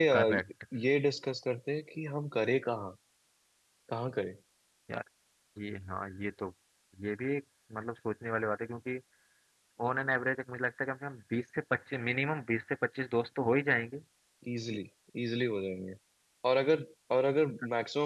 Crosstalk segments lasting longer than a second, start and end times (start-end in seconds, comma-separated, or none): none